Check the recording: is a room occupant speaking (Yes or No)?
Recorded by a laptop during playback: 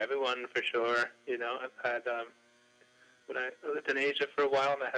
No